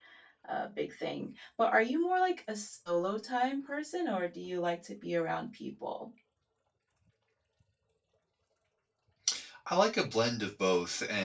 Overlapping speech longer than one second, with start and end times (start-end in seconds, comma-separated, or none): none